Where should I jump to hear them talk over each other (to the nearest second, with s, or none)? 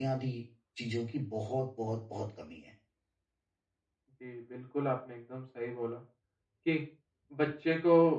none